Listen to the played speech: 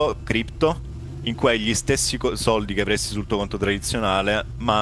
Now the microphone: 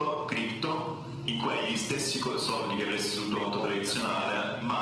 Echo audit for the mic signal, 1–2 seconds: echo only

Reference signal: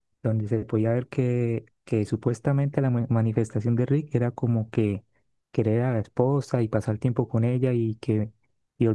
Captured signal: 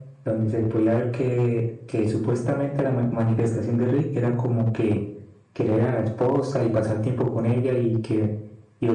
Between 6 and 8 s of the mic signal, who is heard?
echo only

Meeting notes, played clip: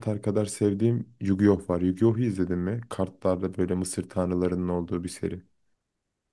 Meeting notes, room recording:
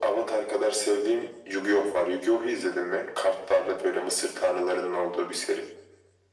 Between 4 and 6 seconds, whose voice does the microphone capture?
echo only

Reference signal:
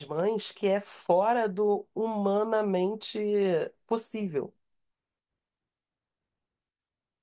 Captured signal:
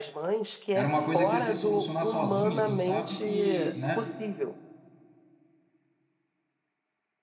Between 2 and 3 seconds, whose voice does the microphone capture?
both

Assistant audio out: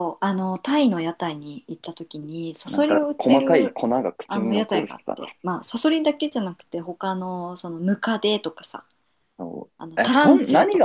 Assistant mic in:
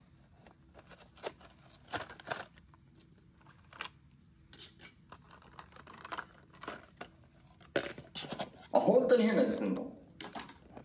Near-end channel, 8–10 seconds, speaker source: user only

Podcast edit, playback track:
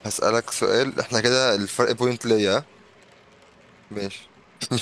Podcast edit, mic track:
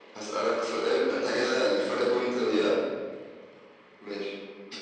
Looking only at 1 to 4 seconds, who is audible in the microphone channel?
echo only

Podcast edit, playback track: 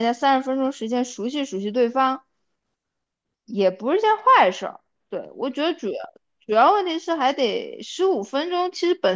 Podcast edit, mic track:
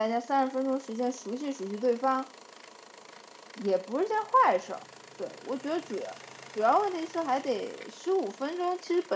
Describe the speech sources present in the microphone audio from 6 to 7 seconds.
echo only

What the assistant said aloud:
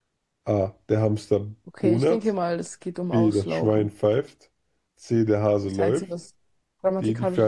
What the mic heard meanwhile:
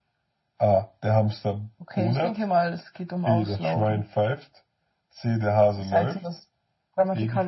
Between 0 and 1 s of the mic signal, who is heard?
echo only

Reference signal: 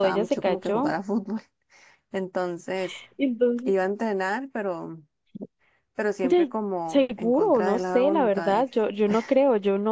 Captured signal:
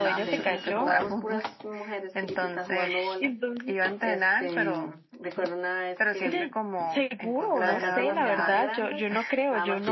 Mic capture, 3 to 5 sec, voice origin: both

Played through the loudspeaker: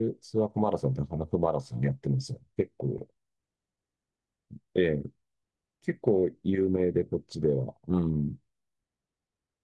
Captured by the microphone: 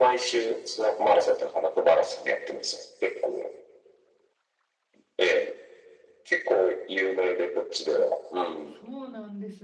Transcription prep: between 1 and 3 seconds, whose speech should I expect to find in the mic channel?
echo only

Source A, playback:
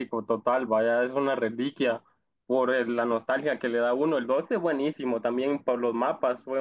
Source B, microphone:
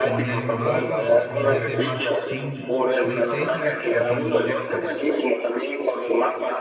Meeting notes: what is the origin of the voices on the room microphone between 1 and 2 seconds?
both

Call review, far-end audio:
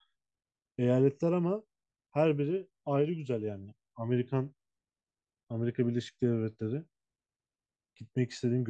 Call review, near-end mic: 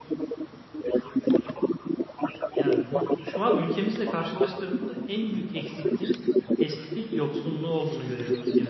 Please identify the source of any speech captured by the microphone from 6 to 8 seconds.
both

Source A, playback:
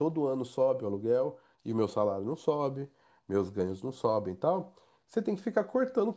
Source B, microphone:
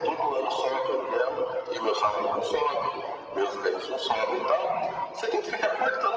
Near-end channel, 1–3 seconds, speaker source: echo only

